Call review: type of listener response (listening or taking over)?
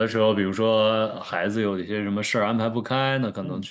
listening